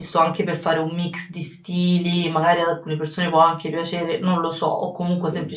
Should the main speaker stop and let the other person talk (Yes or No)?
No